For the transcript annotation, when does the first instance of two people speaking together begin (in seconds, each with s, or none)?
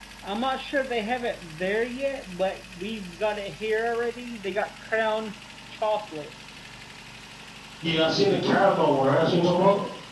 none